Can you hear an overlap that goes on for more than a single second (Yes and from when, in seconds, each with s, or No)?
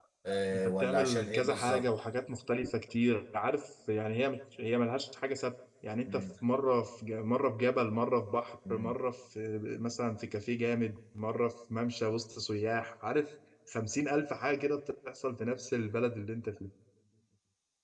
Yes, from 0.5 s